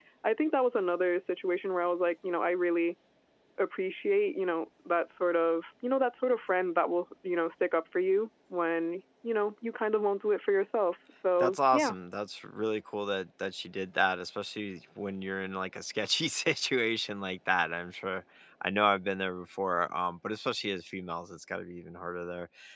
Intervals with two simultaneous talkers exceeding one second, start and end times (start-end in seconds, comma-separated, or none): none